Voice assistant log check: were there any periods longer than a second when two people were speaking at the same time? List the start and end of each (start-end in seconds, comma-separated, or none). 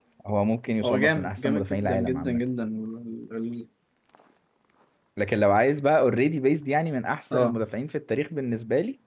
0.8-2.4